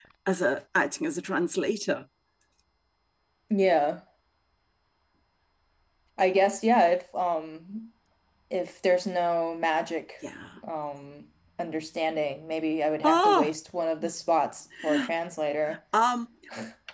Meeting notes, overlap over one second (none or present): none